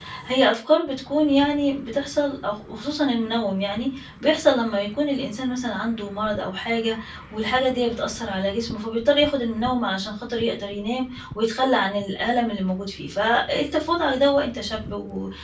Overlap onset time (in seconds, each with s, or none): none